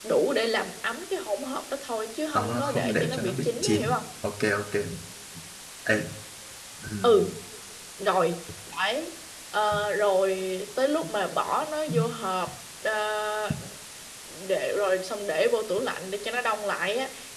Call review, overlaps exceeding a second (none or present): present